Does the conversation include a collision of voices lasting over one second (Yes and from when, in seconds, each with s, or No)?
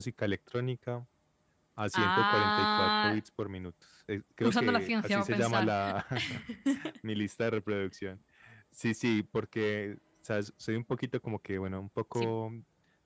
Yes, from 1.9 s